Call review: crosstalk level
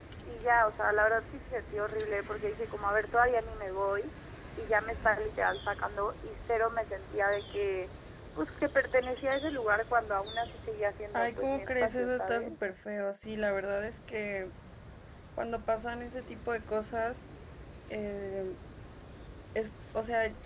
present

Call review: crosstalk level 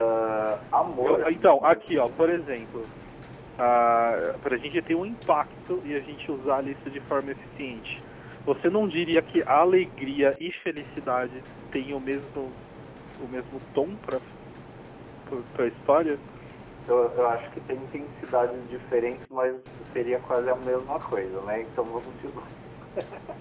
present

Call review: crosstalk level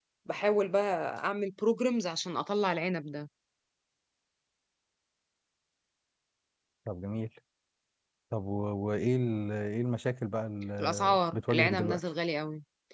present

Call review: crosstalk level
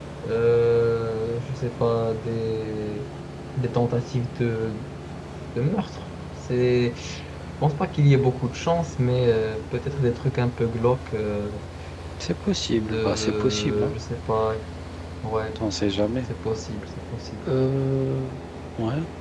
present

